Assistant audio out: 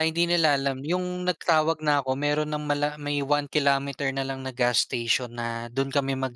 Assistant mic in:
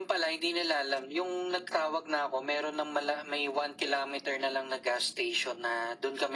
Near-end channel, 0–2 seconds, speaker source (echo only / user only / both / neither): echo only